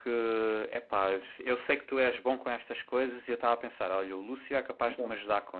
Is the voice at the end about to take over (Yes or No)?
No